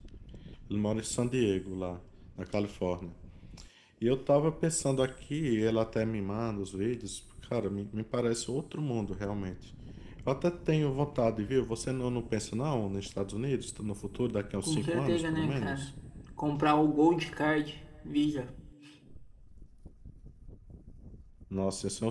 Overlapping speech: Yes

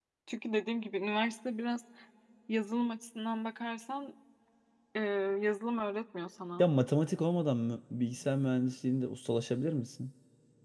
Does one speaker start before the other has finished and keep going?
No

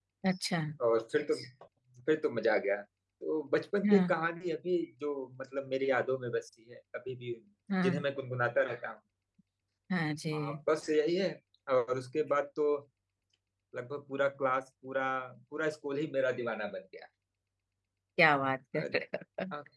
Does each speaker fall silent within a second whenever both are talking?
Yes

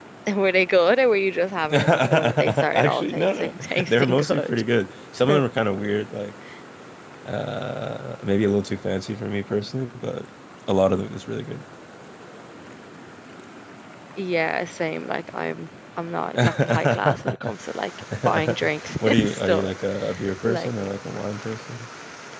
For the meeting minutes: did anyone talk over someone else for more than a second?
Yes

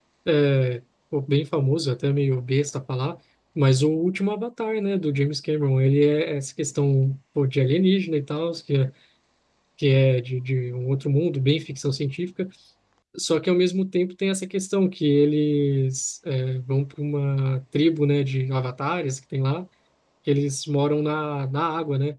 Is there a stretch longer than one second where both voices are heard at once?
No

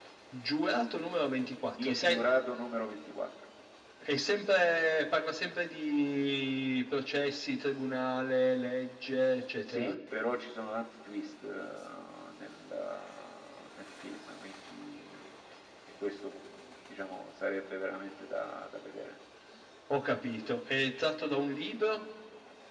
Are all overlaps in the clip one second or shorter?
Yes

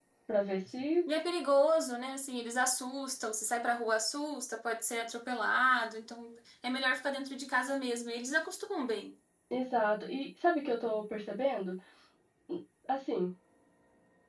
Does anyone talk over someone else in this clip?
No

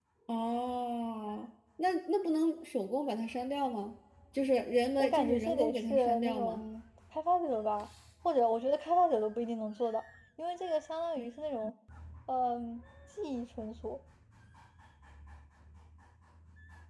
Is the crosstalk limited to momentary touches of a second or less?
No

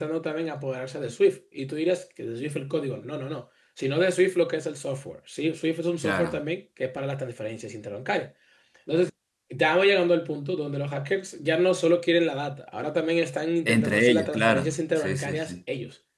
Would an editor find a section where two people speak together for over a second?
Yes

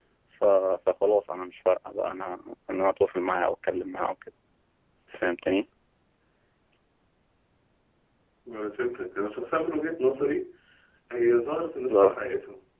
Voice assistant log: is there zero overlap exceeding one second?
Yes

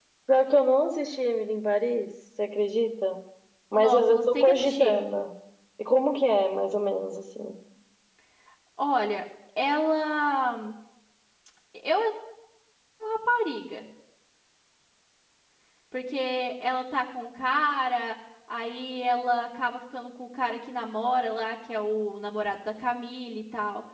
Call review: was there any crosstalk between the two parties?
Yes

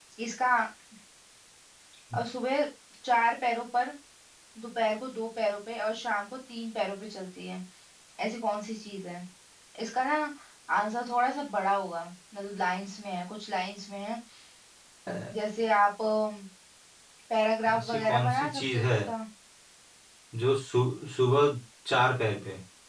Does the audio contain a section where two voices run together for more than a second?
Yes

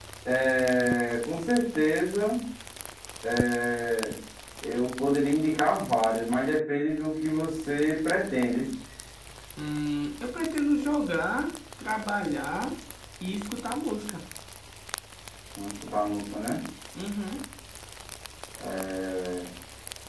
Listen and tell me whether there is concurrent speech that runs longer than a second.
No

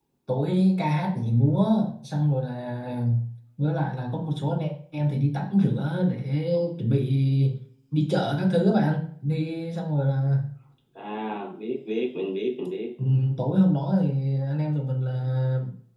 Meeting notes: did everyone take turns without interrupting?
Yes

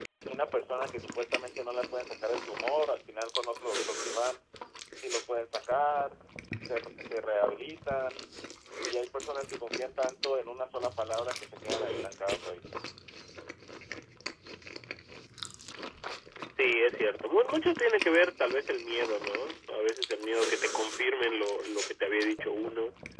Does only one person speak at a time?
Yes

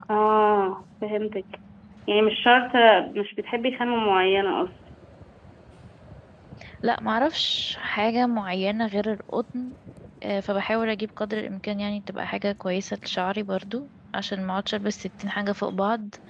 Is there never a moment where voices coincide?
Yes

